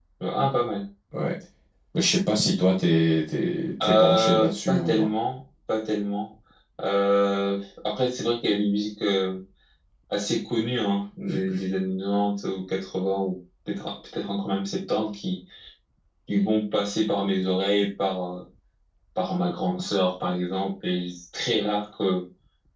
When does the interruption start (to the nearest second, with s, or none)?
4 s